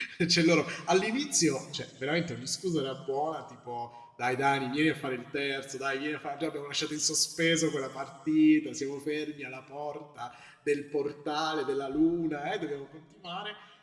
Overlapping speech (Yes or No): No